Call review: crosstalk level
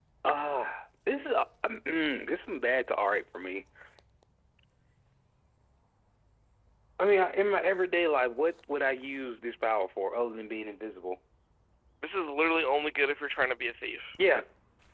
none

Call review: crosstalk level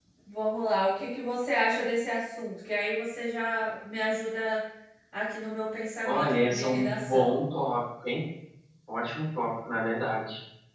present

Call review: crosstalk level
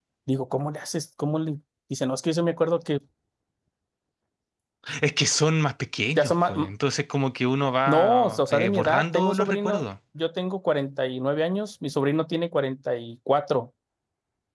present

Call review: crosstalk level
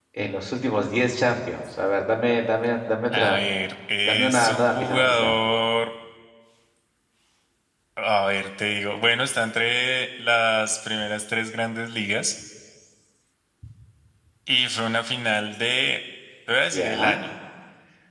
present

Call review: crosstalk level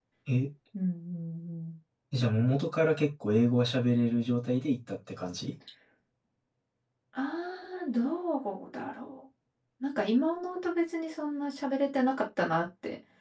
none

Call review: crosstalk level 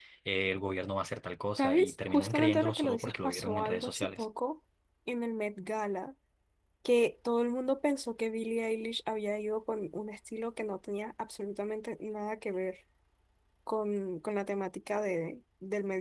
present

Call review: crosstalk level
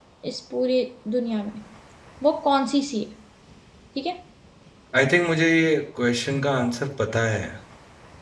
none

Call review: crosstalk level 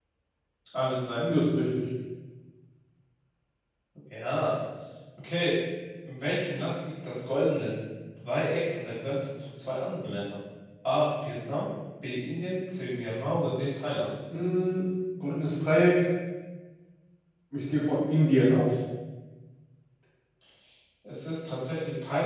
none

